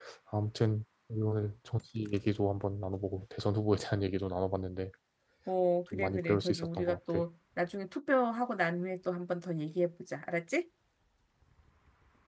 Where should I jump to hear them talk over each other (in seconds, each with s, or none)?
5.9 s